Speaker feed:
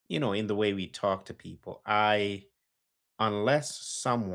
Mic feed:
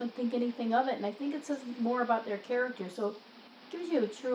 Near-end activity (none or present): present